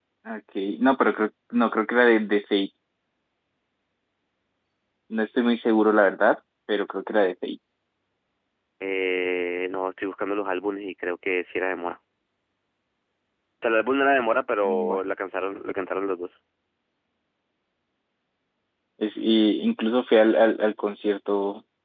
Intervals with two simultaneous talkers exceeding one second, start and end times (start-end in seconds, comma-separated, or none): none